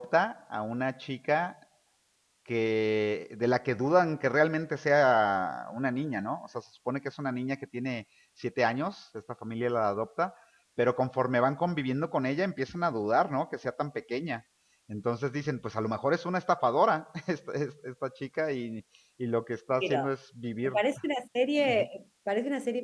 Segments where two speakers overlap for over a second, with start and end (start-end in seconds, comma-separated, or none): none